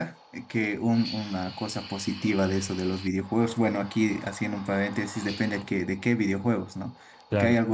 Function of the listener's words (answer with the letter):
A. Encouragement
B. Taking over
A